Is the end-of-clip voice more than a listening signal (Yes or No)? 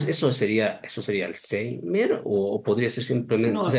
No